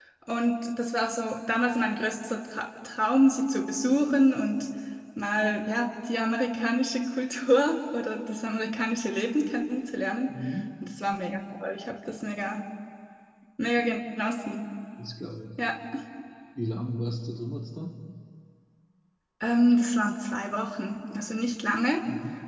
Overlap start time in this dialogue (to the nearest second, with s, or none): none